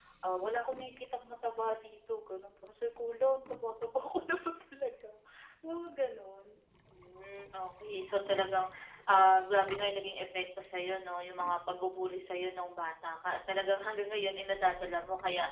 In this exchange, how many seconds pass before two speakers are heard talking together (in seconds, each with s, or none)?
none